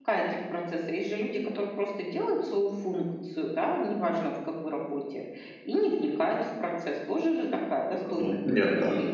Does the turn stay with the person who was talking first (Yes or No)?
No